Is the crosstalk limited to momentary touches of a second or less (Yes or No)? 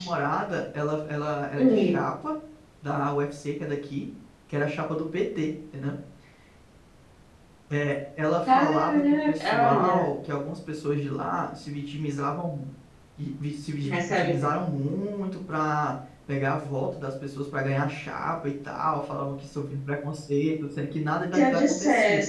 No